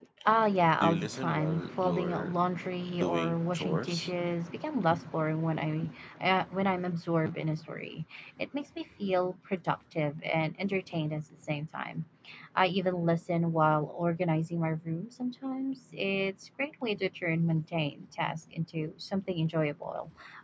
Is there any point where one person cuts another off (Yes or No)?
Yes